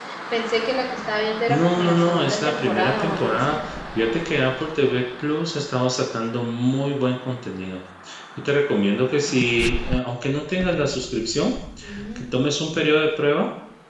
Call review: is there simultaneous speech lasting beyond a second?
Yes, from 1.5 s

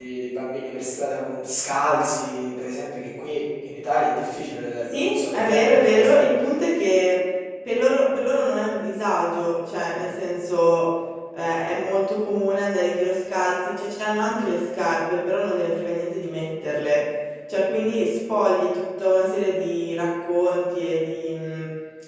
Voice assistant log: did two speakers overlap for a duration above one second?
Yes, from 4.9 s

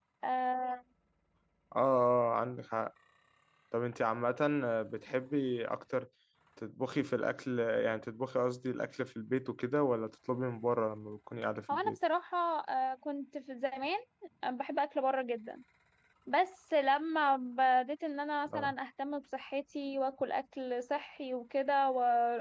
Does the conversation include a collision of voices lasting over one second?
No

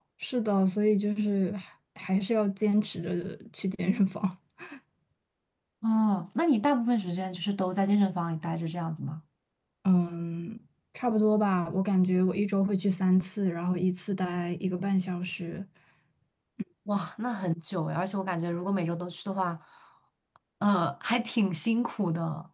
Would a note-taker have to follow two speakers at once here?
No

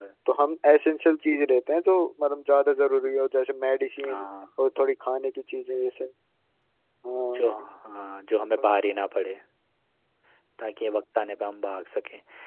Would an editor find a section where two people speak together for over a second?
No

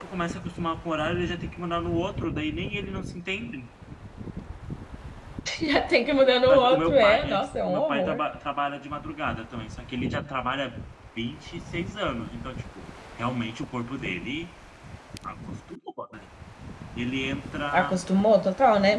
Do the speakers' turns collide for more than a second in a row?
Yes, from 6.5 s

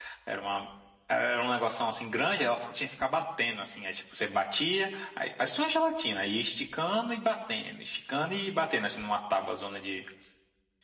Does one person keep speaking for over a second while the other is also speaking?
No

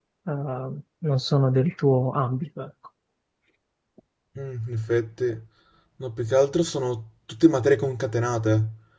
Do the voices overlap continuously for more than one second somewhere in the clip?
No

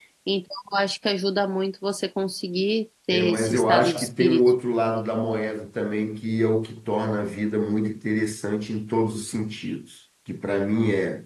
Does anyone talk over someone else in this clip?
Yes, from 3.1 s

